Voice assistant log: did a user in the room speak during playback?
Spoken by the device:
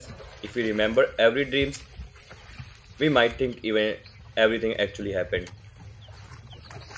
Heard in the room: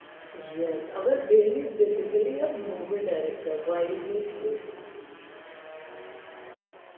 Yes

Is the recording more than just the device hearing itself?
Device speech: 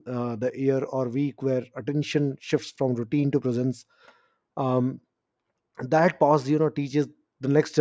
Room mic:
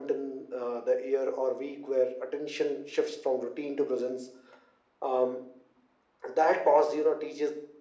No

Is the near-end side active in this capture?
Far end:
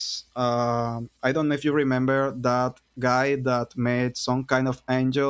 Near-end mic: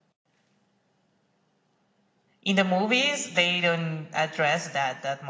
Yes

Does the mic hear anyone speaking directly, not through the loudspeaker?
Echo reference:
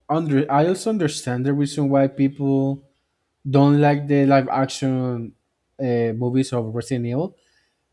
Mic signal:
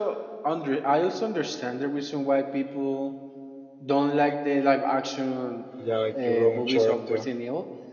Yes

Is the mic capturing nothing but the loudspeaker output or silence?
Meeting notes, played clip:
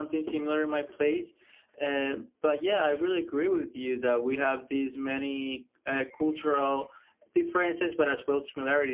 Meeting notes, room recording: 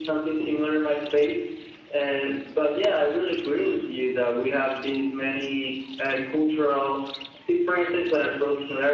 Yes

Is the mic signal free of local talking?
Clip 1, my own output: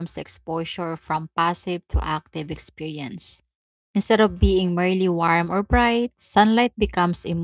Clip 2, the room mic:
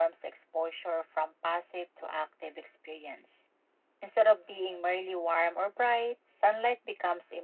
Yes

